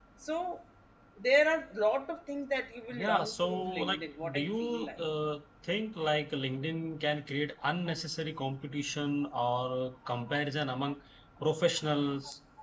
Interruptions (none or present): present